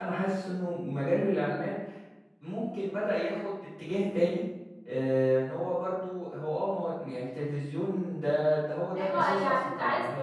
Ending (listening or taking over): taking over